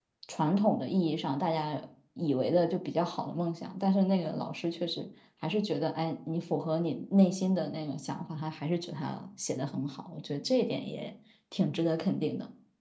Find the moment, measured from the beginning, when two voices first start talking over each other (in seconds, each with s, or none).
none